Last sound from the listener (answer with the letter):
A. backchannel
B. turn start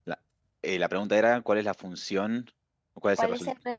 B